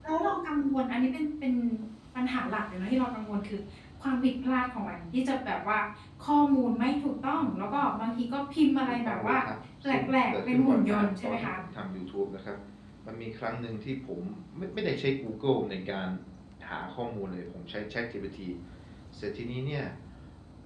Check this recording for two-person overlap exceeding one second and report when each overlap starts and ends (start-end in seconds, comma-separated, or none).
9.8-11.5